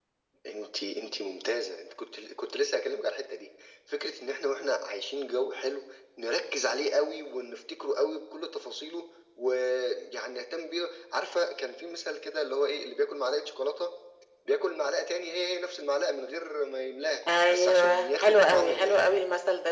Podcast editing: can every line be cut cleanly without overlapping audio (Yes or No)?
No